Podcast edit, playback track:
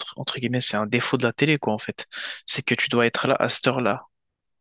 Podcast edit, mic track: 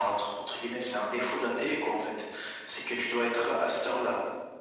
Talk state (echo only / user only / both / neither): echo only